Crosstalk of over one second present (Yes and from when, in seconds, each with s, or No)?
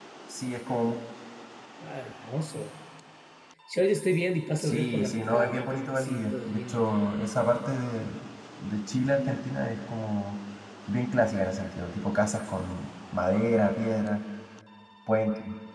Yes, from 4.6 s